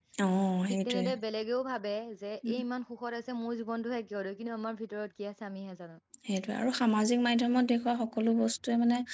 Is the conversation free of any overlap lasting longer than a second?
Yes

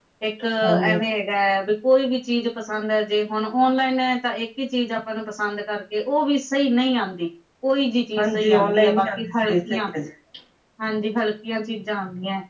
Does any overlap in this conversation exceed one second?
Yes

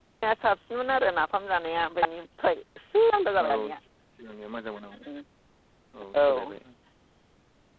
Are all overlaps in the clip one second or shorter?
Yes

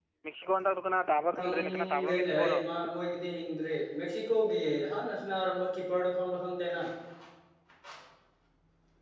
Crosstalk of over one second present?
Yes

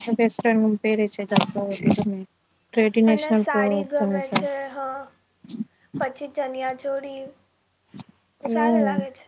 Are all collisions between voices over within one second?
No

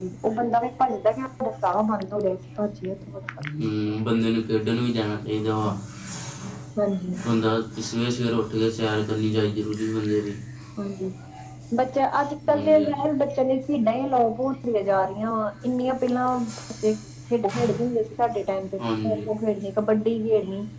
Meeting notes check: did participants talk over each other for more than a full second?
No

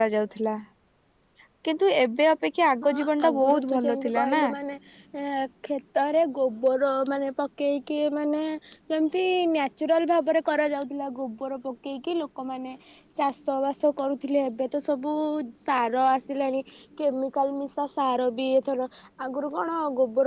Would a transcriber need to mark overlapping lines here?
Yes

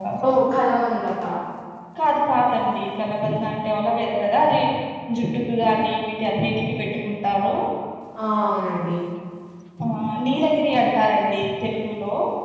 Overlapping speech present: No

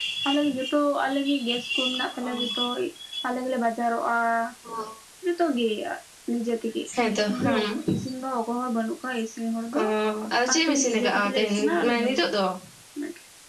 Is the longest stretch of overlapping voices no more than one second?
No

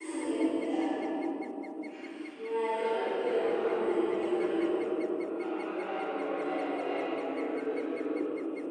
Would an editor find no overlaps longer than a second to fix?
No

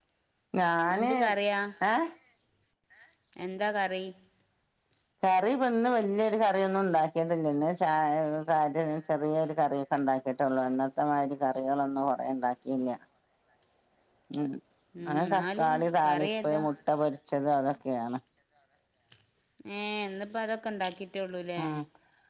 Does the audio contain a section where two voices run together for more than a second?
Yes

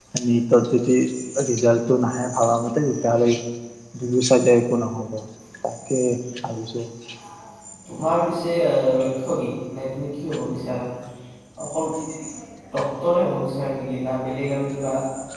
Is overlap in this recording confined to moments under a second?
Yes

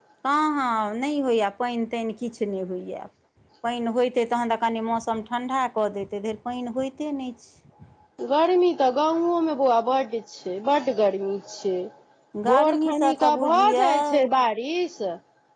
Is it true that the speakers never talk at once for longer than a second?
No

